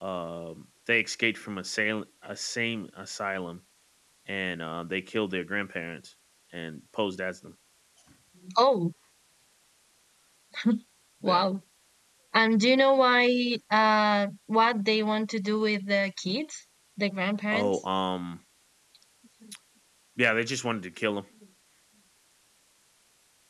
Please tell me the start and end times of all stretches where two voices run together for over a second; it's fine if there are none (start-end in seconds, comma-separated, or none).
none